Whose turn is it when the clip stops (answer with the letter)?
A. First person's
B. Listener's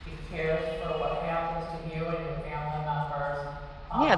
B